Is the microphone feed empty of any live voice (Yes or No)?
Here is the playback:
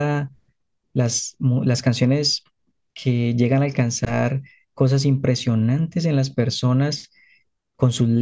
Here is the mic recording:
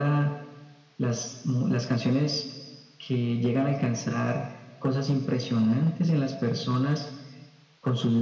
Yes